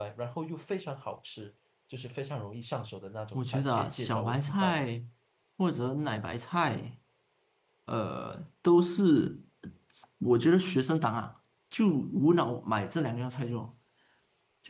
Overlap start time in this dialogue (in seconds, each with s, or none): 3.3 s